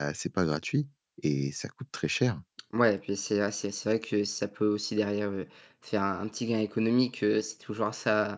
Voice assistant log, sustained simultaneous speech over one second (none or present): none